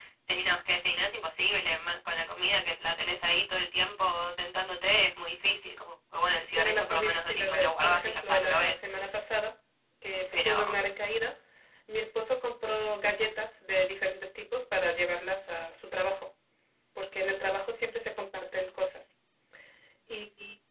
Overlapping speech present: Yes, from 6.6 s

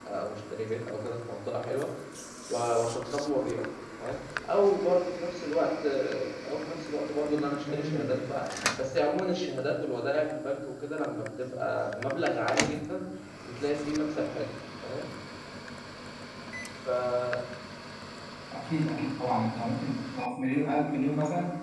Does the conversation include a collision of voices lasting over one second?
No

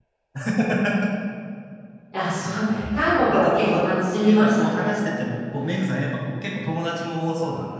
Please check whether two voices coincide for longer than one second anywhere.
Yes, from 2.4 s

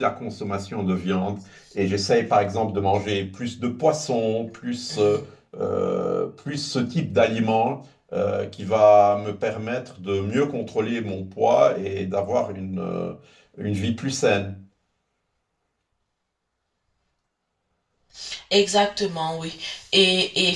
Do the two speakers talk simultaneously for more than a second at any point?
No

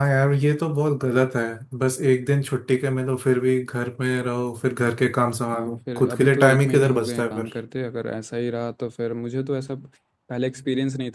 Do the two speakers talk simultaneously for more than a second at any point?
Yes, from 5.5 s

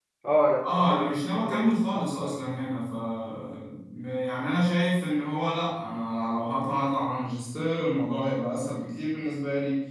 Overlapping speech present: Yes, from 0.6 s

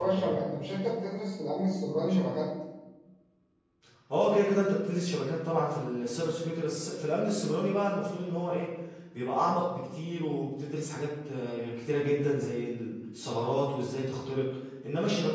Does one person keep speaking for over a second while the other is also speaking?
No

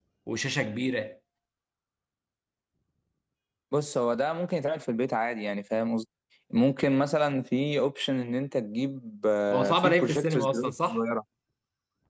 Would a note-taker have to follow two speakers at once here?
Yes, from 9.5 s

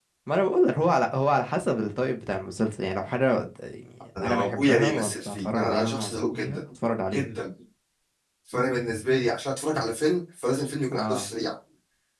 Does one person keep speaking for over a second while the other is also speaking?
Yes, from 4.2 s

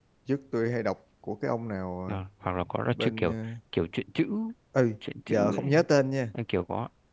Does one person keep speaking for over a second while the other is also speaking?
No

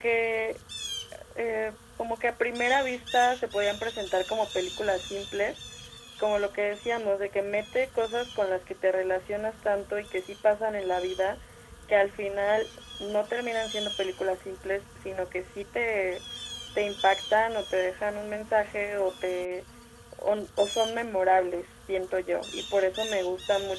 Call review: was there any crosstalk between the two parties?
No

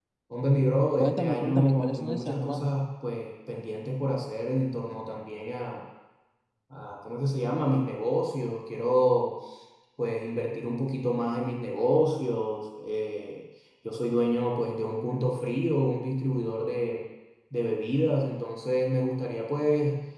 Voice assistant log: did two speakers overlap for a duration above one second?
Yes, from 1.0 s

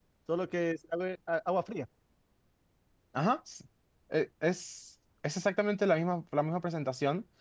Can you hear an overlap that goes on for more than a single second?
No

